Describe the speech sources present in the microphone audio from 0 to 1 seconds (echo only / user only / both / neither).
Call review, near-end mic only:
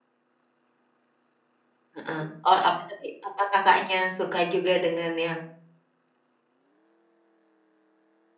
neither